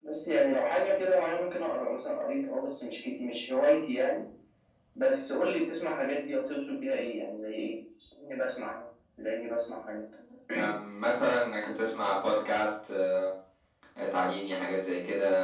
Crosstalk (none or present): none